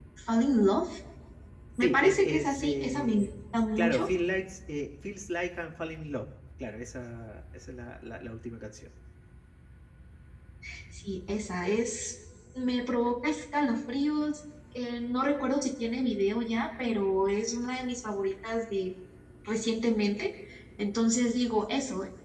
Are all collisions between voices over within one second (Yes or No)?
No